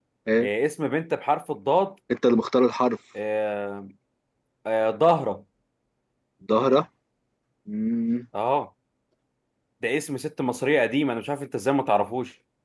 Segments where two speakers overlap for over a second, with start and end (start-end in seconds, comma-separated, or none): none